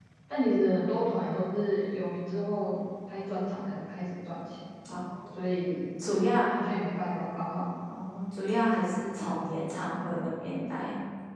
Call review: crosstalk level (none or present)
none